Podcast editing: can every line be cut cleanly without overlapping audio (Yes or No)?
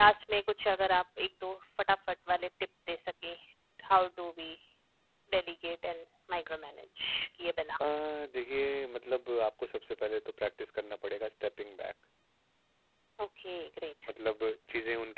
Yes